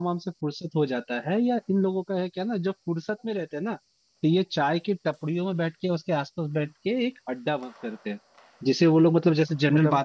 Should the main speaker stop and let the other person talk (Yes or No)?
No